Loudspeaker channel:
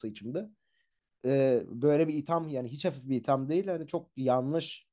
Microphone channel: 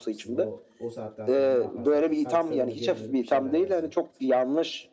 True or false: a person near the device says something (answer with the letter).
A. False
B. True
B